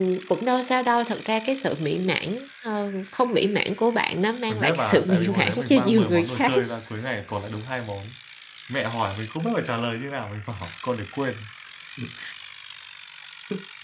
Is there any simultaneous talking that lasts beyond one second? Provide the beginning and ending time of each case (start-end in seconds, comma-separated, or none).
4.5-6.5